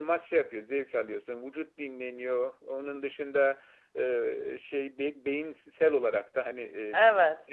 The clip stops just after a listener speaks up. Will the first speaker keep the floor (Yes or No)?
Yes